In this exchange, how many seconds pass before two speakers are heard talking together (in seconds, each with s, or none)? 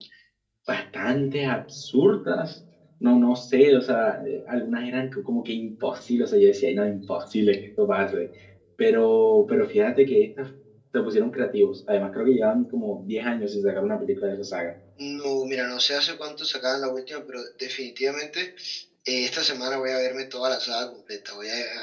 none